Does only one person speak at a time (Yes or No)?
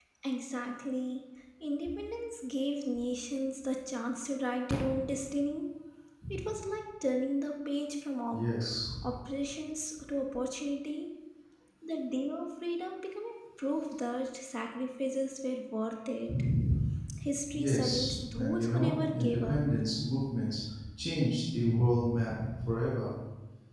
No